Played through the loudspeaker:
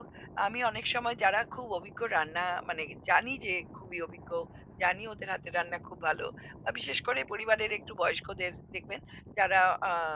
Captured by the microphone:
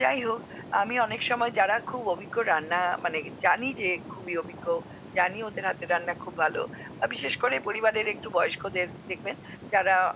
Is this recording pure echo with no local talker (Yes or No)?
Yes